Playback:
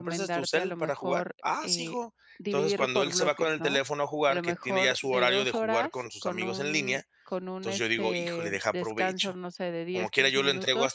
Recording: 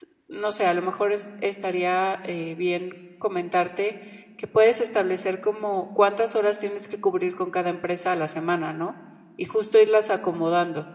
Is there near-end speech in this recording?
Yes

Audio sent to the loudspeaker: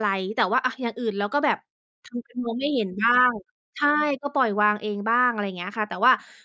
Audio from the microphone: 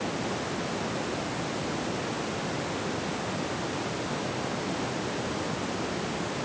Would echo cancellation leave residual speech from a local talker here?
No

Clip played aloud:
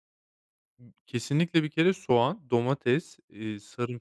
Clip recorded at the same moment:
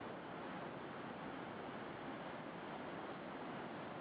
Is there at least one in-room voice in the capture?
No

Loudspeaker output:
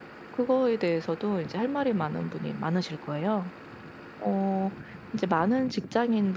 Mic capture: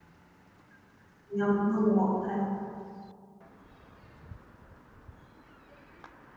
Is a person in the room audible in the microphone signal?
Yes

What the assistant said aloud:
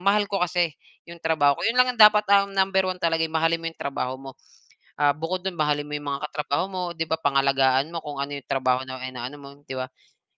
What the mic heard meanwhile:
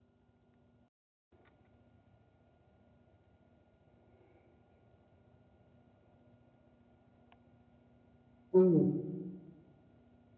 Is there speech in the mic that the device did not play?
Yes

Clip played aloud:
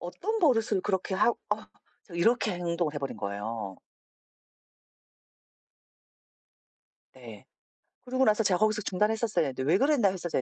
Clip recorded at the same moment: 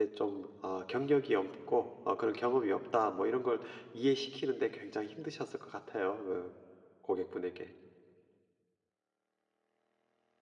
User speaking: Yes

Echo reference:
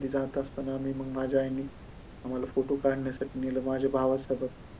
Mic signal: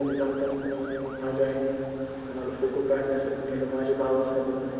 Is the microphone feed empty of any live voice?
Yes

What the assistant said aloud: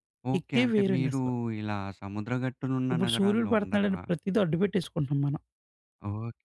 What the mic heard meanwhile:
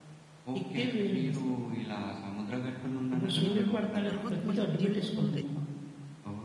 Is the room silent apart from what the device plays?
No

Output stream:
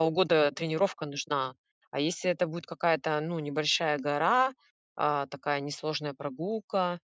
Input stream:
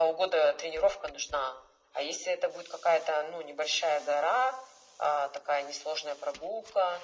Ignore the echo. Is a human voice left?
No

